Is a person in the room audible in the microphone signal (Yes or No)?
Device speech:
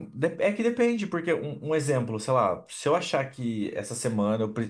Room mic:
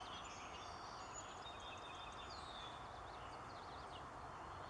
No